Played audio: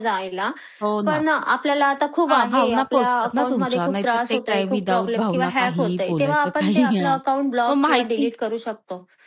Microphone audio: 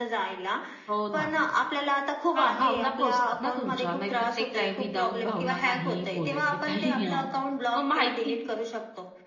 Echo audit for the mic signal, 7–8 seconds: echo only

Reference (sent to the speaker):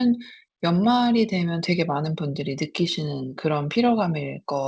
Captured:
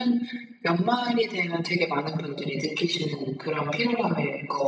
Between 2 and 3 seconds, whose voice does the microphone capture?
echo only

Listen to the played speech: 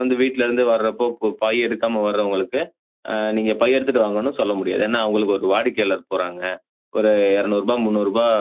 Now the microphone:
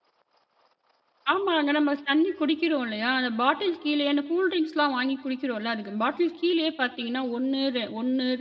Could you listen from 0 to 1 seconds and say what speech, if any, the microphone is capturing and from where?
neither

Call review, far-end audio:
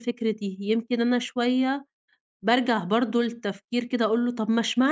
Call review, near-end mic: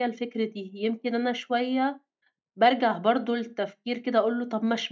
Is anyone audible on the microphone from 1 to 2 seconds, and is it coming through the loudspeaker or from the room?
echo only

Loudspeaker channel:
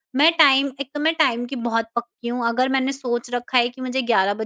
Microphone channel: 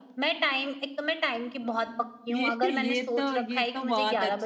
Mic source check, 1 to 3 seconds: both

